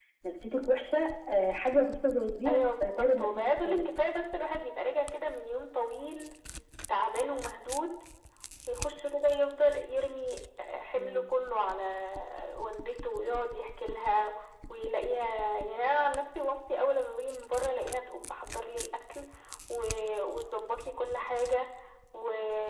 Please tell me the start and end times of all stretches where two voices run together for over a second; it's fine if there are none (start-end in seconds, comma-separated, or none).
2.5-3.9